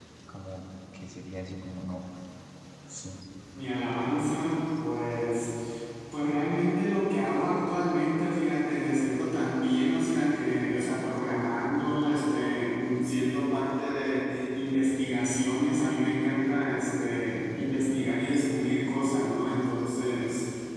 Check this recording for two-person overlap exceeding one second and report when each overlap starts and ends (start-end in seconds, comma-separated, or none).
none